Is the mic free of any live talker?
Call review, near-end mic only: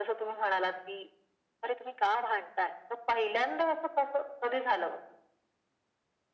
Yes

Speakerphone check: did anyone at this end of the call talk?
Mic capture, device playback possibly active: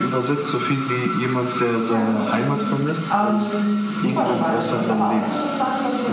Yes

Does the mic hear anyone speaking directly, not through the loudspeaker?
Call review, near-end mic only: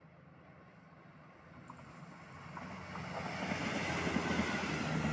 No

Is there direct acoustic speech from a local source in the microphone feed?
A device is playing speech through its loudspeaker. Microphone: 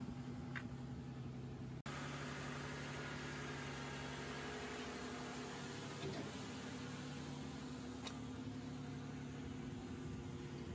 No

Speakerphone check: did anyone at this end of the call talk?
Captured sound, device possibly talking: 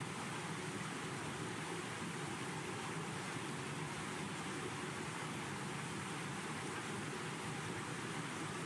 No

